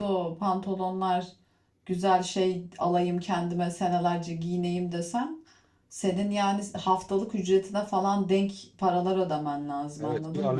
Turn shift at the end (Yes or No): Yes